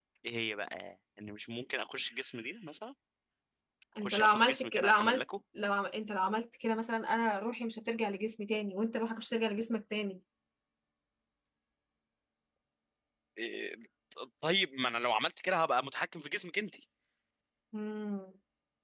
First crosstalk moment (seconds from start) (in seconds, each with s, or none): 4.0 s